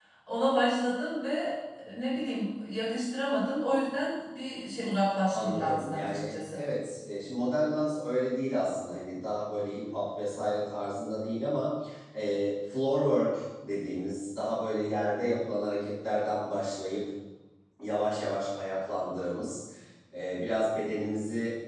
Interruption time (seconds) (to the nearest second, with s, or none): 5 s